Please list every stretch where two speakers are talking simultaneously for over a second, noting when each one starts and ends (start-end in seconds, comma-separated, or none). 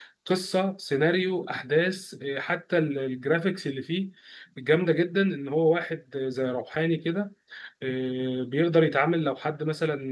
none